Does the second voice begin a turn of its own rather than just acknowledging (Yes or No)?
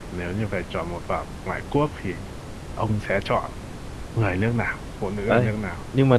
Yes